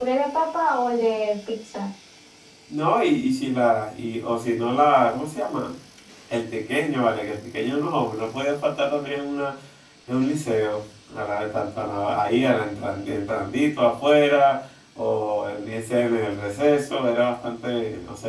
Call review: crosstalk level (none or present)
none